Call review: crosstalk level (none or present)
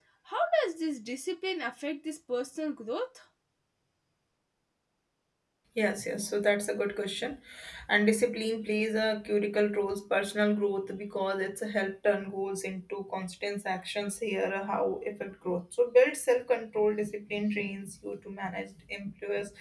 none